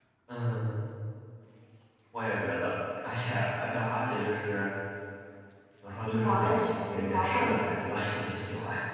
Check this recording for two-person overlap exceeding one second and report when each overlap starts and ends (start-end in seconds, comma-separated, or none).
6.0-7.7